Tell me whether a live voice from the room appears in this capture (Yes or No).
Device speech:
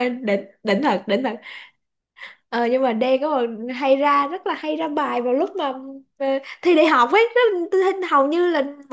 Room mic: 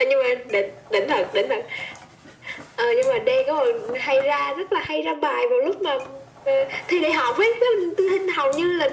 No